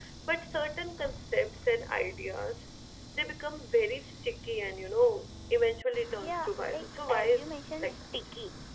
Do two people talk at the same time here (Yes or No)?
Yes